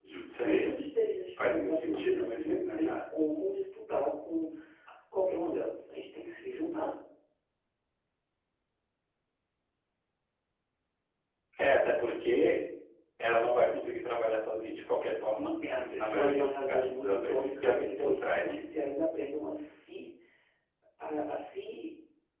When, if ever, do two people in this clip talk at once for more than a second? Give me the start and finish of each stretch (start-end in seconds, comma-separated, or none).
1.4-3.0, 15.6-18.6